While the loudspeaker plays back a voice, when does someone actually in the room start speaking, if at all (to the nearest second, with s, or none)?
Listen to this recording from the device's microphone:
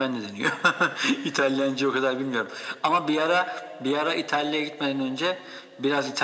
none